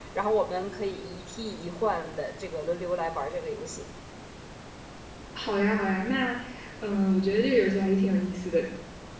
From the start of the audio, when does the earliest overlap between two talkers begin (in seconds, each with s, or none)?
none